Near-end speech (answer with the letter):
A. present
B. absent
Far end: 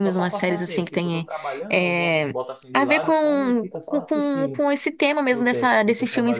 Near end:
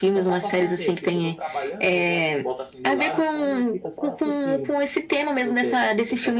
B